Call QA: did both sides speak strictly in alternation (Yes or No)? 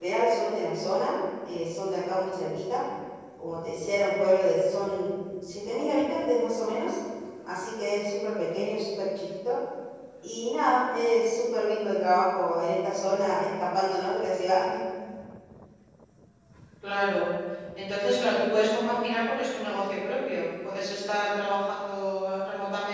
Yes